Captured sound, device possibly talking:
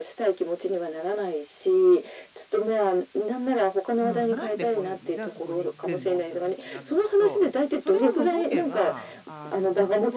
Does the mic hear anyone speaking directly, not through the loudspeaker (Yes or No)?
Yes